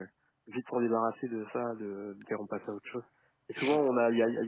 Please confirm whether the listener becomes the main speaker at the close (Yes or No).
No